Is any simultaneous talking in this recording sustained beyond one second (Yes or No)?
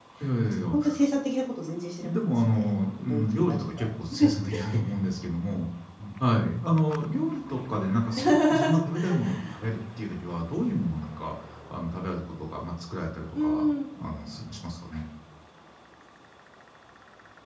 Yes